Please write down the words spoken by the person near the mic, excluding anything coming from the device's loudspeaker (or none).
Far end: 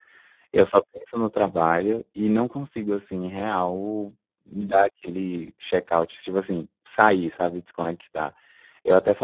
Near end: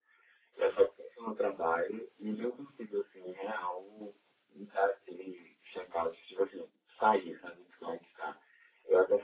none